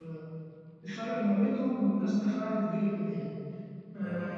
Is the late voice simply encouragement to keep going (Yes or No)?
Yes